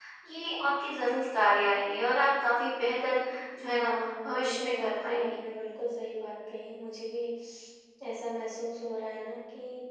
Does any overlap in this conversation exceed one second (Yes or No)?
Yes